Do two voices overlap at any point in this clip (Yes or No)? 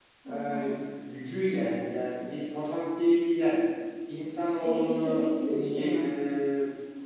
Yes